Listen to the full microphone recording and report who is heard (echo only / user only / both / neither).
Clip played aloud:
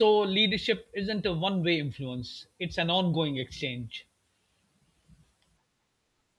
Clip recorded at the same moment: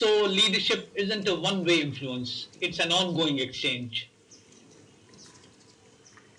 echo only